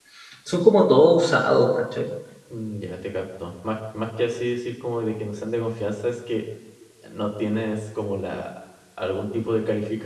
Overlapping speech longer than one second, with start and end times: none

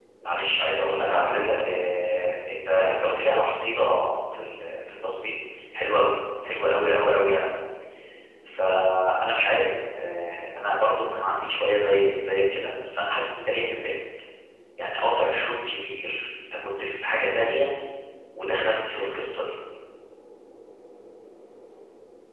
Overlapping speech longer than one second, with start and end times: 1.0-2.2

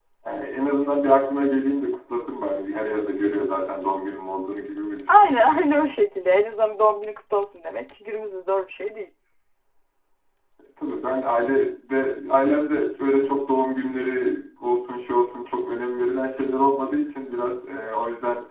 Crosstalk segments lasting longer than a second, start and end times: none

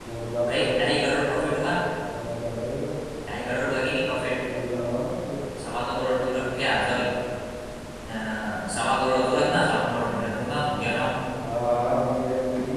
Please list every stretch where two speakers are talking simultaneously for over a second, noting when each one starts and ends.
none

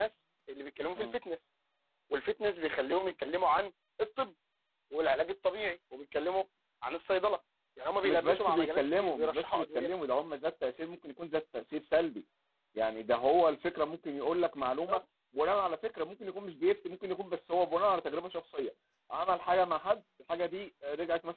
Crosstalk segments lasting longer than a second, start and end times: 8.0-9.9

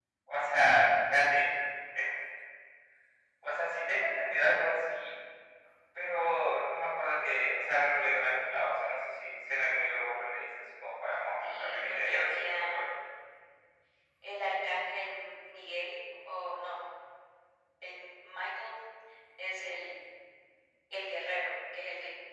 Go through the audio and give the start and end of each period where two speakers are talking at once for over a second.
11.4-12.8

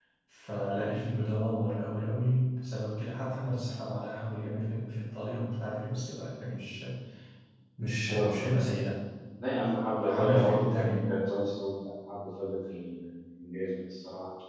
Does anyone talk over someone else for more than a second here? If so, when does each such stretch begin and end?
9.9-11.1

